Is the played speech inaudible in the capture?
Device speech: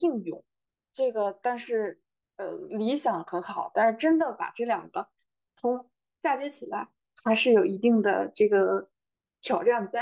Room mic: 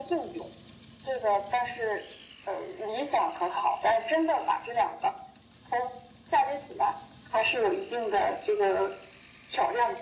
No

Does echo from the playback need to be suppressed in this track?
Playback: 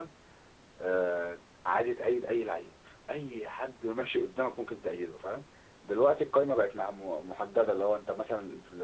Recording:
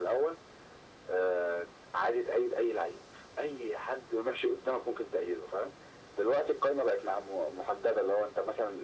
Yes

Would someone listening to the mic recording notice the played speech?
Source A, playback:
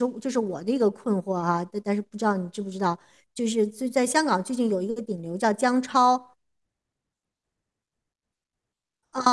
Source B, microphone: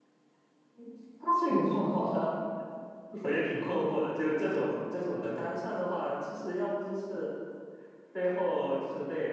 No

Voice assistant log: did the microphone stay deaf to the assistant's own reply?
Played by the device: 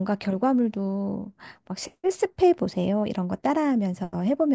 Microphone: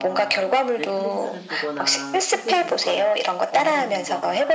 No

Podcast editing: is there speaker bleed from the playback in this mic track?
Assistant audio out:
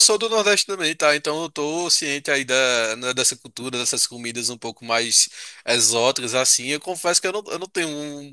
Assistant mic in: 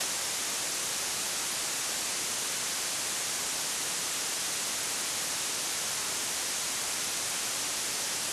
No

